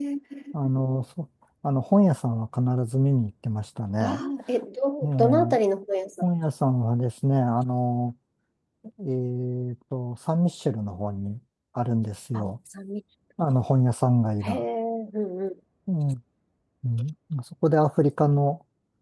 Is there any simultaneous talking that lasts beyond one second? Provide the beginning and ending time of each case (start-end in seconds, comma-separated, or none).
none